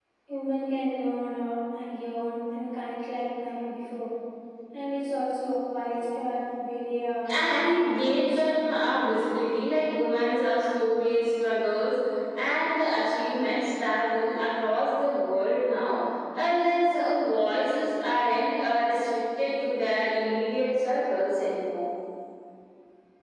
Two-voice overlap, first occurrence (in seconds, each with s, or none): 7.3 s